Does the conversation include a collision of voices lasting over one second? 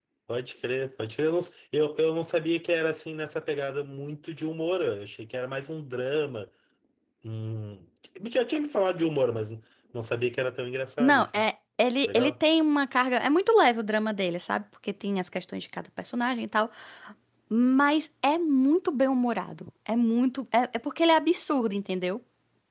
No

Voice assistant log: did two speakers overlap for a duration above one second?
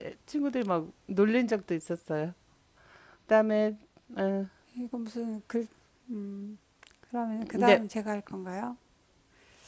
No

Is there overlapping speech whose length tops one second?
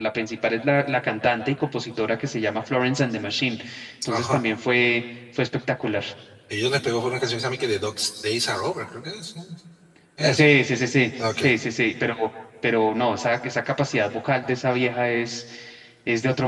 No

